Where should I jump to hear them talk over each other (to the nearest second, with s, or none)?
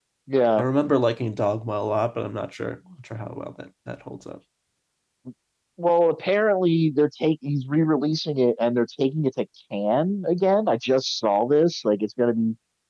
none